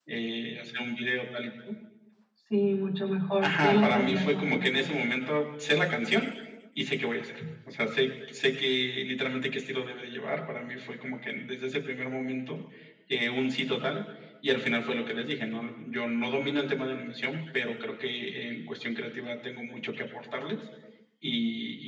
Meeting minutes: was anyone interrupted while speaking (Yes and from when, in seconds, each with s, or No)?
Yes, from 3.4 s